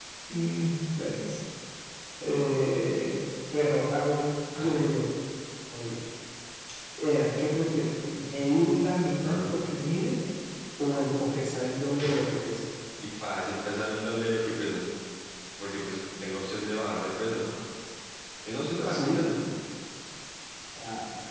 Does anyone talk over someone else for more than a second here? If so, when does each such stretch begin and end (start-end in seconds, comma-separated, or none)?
none